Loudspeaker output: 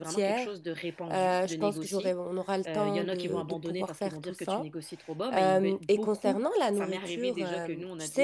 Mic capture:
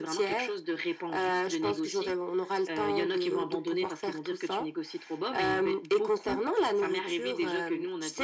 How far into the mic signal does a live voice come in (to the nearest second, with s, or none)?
none